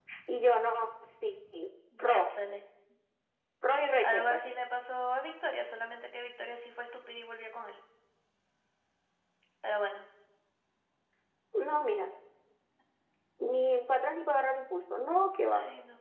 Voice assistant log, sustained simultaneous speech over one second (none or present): none